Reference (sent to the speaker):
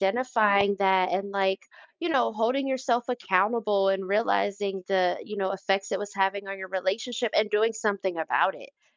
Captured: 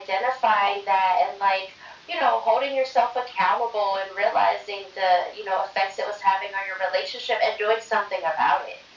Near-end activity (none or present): none